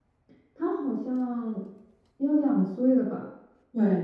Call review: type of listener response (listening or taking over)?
taking over